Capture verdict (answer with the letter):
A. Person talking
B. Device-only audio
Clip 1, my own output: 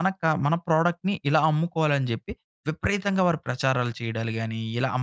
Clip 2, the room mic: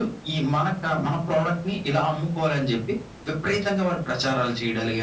B